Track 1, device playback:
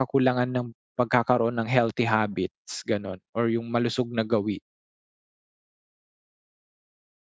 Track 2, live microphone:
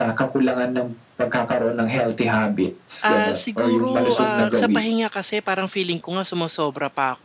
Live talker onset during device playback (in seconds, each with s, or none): 3.0 s